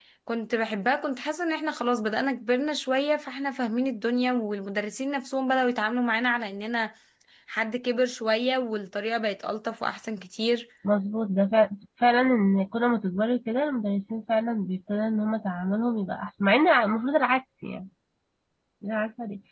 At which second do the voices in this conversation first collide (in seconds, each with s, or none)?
none